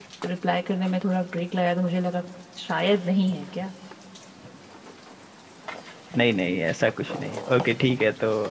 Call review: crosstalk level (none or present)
none